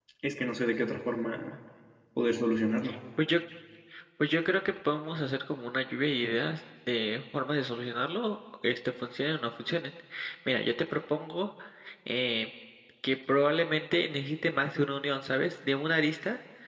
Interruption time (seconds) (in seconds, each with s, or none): none